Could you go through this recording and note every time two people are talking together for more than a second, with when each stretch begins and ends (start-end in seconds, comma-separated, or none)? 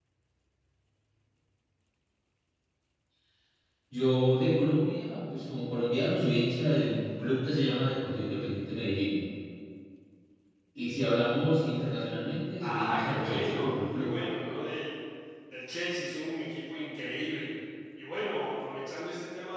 12.6-14.1